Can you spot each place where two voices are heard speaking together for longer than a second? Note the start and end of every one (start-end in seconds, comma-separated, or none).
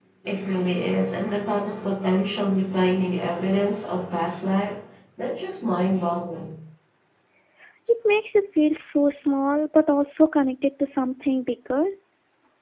none